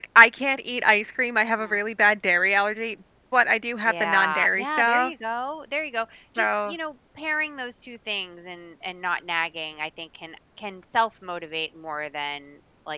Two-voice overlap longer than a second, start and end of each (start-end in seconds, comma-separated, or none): 3.9-5.1